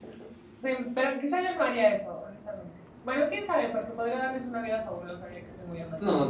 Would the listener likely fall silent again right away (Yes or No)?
No